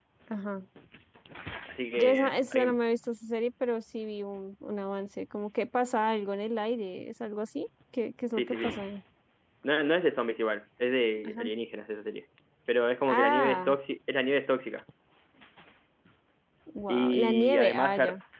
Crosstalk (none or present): present